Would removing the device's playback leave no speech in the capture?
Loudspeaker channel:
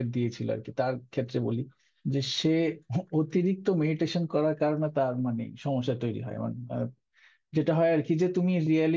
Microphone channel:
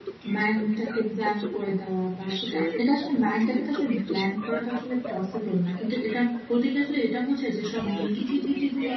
No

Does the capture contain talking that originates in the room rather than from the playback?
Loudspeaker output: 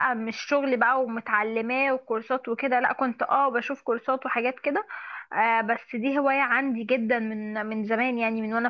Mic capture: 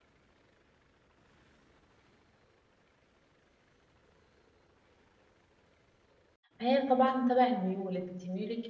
Yes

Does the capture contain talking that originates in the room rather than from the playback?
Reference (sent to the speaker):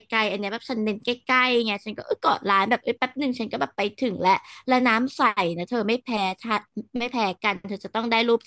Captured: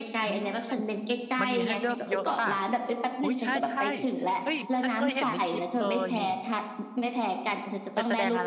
Yes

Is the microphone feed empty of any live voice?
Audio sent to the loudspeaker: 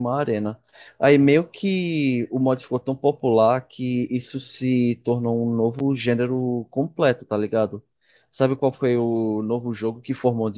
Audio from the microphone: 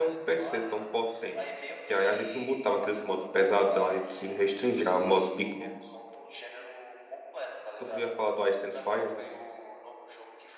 No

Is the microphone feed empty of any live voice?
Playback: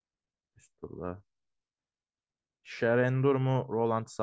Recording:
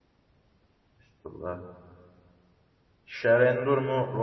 Yes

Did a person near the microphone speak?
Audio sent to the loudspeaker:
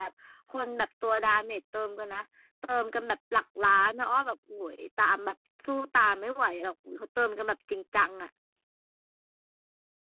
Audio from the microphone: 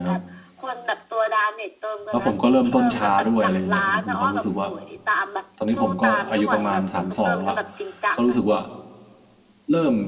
Yes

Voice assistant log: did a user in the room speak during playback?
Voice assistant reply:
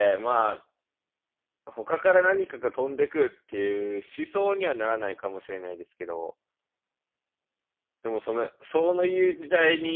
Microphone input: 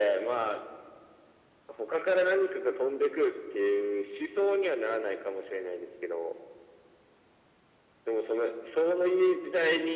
No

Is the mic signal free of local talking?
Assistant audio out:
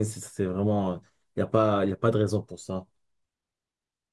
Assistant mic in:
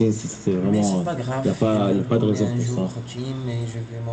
No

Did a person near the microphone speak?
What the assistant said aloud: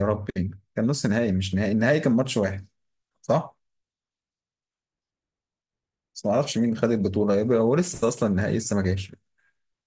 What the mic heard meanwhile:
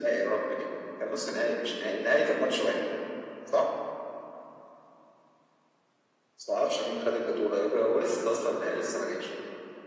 No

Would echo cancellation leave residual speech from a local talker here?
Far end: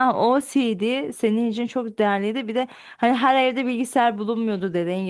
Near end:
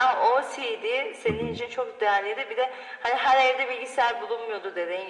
Yes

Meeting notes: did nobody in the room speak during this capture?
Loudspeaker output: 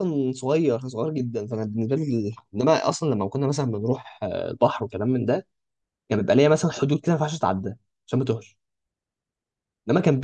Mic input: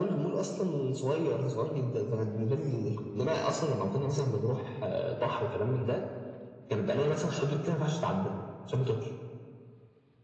Yes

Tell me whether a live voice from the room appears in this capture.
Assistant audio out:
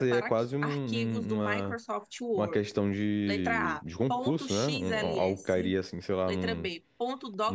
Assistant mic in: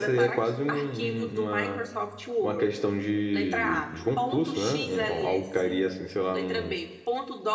No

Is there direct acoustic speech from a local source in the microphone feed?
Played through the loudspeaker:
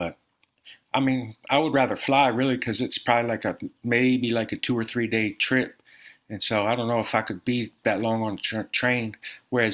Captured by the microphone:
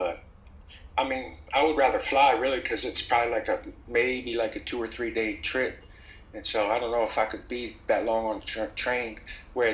No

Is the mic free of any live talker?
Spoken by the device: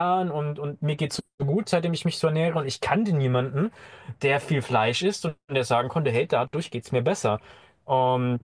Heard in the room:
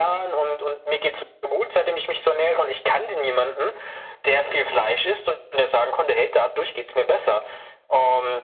Yes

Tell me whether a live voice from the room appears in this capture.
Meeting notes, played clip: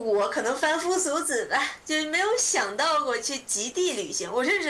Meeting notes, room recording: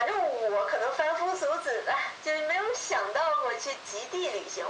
No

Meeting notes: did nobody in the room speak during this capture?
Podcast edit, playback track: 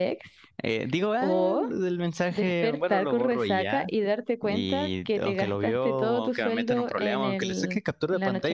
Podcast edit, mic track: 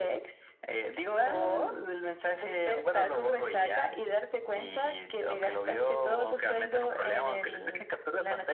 Yes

